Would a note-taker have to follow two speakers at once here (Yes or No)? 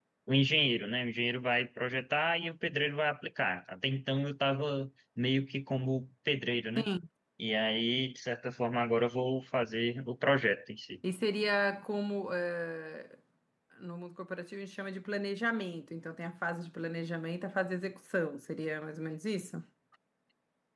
No